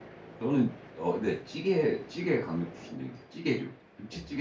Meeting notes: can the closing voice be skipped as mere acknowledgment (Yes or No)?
No